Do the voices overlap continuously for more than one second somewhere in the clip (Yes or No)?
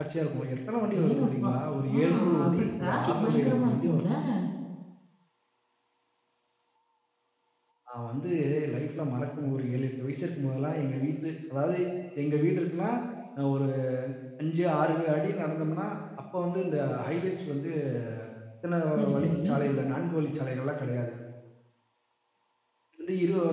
Yes